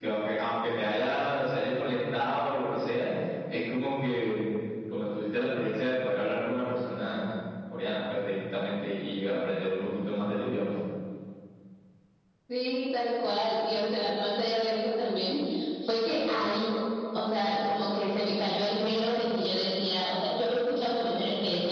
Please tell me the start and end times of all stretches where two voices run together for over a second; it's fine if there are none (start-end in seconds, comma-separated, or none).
none